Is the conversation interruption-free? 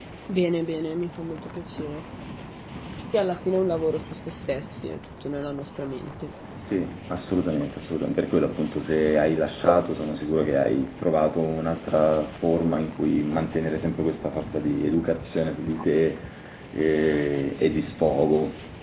Yes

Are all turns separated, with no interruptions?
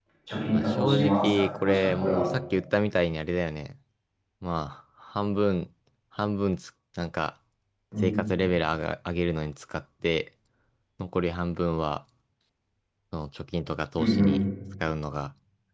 No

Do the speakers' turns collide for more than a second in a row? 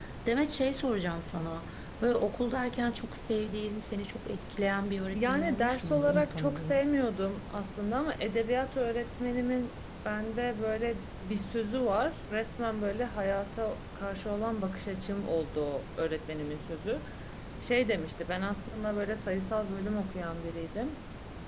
Yes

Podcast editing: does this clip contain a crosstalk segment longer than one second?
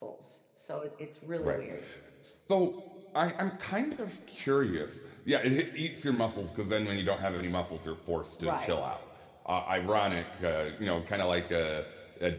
No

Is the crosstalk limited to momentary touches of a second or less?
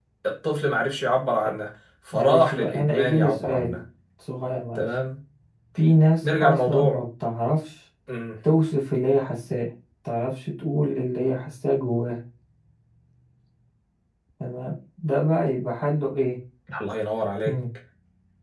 No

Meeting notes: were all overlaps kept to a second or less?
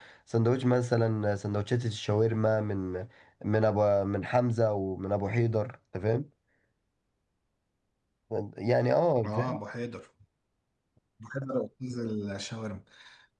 Yes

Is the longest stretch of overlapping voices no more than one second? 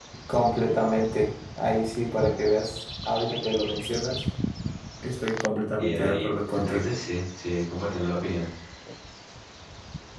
No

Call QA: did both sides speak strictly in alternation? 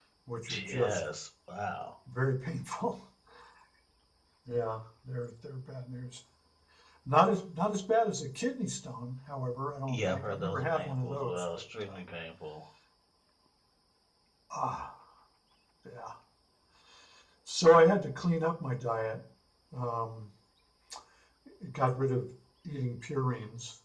No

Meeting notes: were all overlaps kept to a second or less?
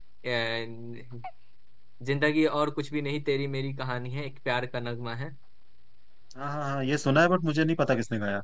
Yes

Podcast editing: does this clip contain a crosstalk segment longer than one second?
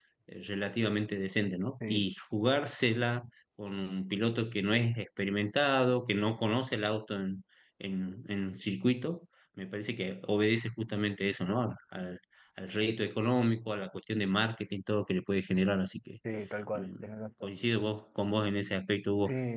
No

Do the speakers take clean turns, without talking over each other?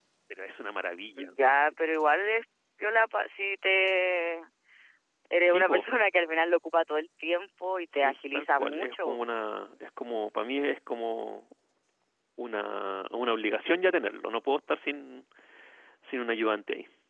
No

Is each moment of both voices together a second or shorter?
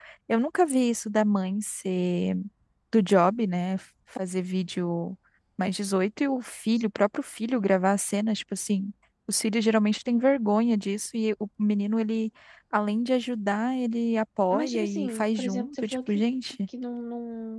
No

